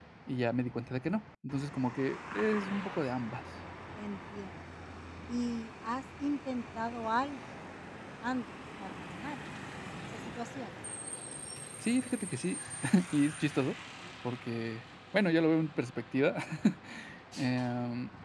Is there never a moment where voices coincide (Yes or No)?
Yes